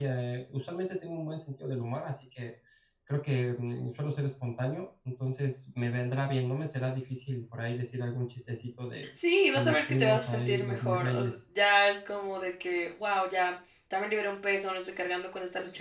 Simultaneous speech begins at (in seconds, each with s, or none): 9.5 s